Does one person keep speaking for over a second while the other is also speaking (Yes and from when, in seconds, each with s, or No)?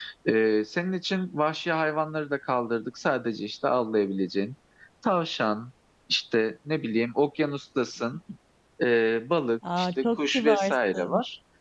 Yes, from 9.6 s